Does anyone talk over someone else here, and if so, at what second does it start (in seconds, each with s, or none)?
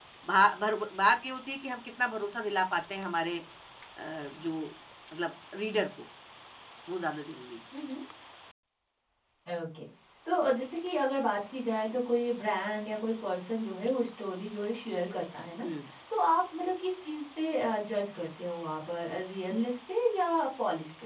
none